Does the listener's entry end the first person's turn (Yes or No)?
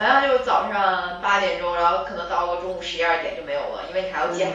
No